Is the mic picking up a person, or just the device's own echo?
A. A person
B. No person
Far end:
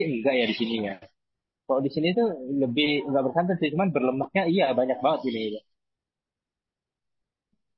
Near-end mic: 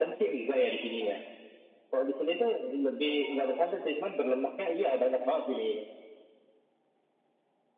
B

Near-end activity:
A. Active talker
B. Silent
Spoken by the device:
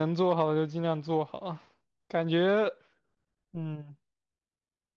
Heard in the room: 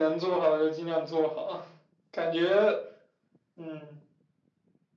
B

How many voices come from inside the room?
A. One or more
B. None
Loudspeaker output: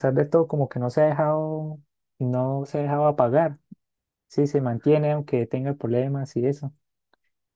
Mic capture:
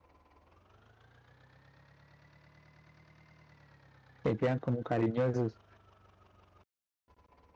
A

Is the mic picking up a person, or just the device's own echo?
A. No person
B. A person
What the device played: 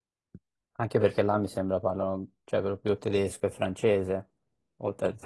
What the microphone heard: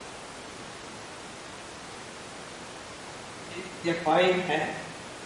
B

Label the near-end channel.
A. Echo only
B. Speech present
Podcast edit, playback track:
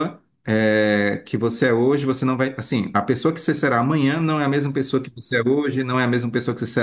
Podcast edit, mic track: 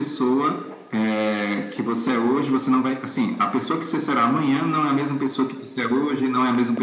A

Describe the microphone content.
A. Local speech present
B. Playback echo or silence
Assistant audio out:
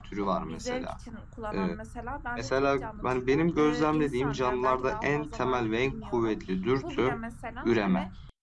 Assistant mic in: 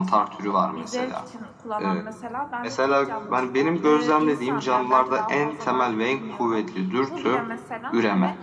B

